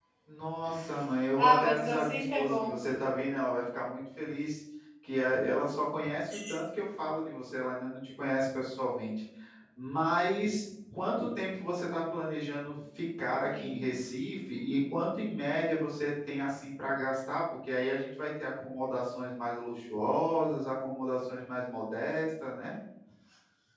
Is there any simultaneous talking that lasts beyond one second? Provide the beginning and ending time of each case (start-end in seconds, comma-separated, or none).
1.4-2.8